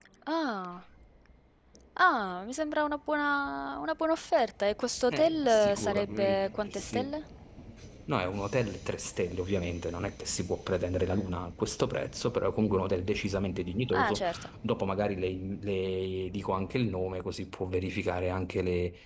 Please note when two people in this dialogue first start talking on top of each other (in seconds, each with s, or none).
5.1 s